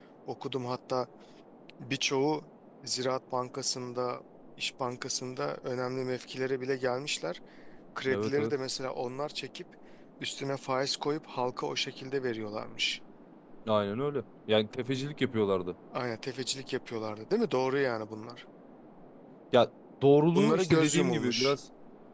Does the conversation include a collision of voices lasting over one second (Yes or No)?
Yes